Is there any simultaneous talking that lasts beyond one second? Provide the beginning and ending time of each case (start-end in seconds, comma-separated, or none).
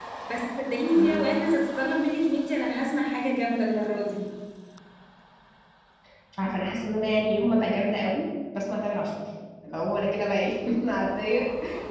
none